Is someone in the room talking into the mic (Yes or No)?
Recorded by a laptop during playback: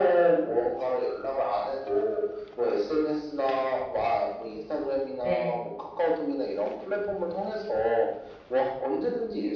Yes